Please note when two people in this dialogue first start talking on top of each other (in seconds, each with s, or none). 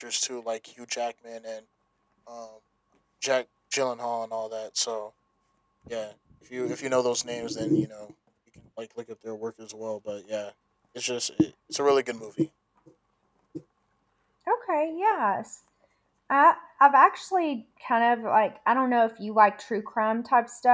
none